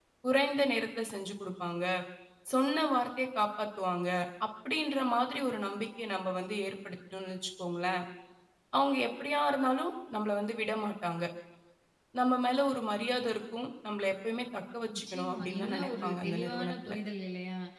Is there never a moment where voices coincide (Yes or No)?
No